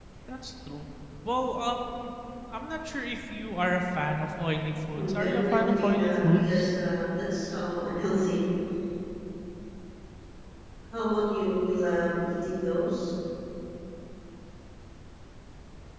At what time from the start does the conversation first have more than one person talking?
5.0 s

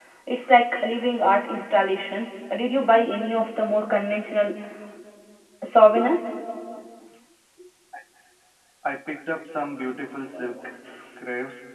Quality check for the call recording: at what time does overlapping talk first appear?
none

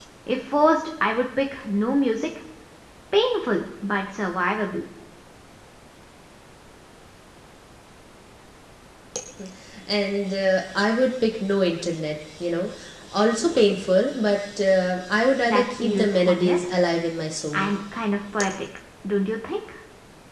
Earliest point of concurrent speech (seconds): 15.4 s

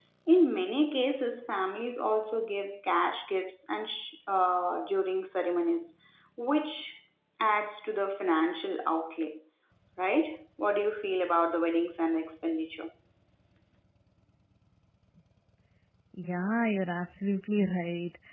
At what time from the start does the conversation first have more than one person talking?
none

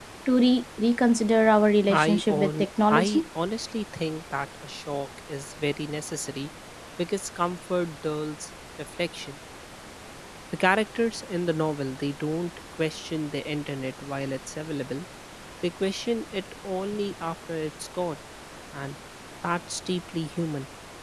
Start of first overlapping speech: 1.9 s

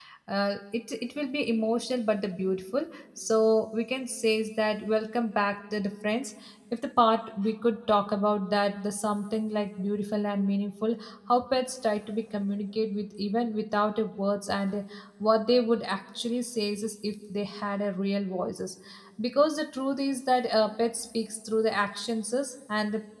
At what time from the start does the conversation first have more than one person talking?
none

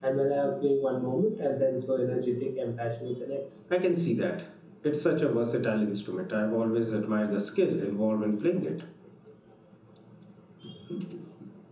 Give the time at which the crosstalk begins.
none

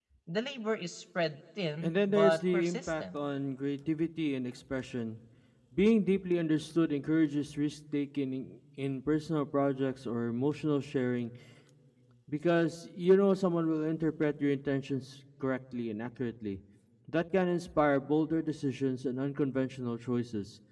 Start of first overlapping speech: 1.8 s

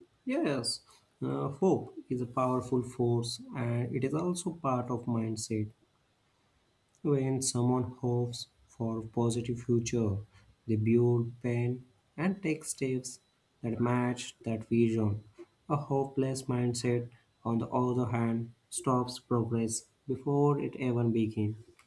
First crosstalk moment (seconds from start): none

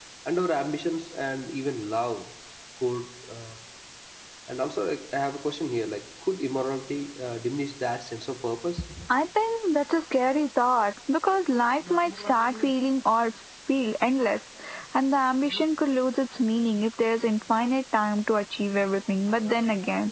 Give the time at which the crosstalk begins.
none

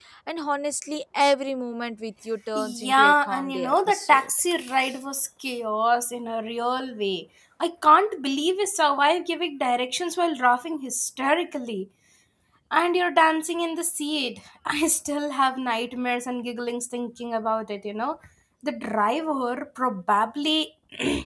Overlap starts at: 2.5 s

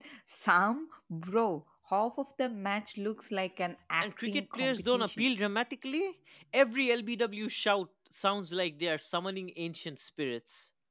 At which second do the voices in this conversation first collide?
4.0 s

